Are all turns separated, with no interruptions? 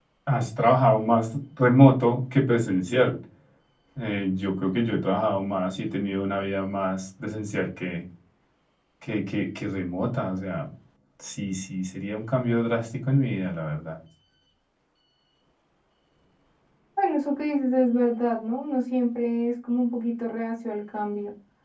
Yes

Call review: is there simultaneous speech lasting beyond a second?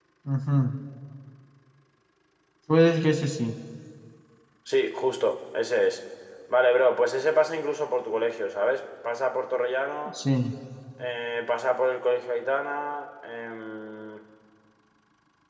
No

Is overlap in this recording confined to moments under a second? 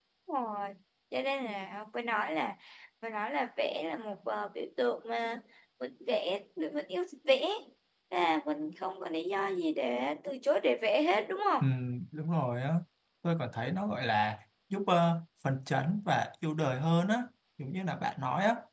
Yes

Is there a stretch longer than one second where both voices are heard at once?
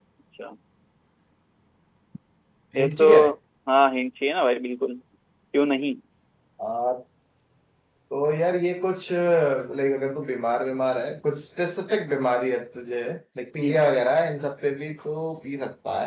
No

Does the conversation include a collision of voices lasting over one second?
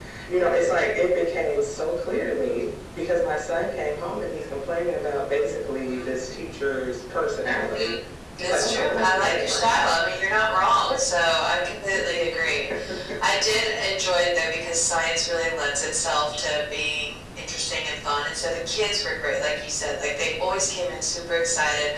Yes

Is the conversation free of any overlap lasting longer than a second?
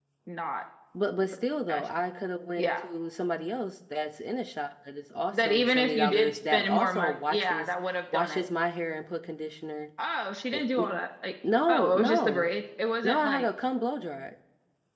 No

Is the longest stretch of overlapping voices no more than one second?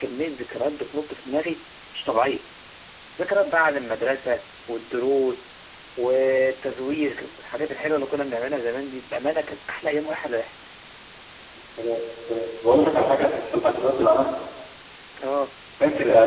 Yes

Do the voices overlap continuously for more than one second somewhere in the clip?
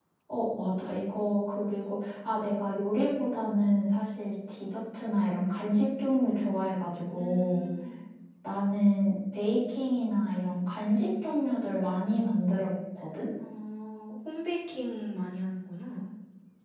No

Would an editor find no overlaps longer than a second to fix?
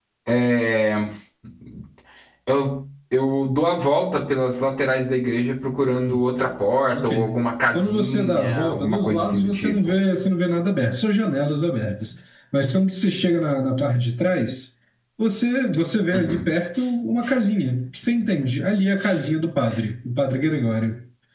No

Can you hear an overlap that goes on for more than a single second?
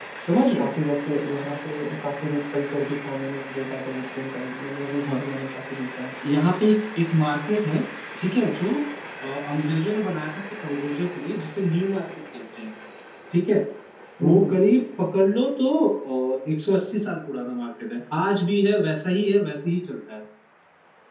No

